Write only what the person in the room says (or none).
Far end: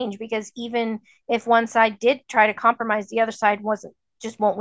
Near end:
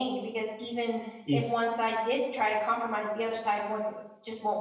if,